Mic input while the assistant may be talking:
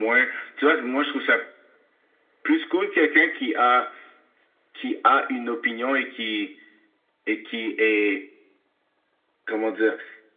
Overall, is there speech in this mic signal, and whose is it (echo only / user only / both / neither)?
echo only